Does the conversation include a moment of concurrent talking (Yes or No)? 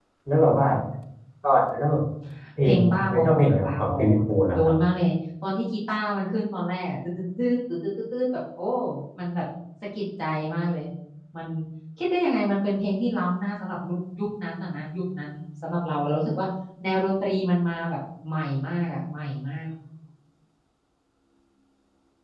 Yes